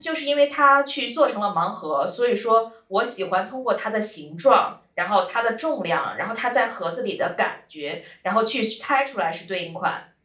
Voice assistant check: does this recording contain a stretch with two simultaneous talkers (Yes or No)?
No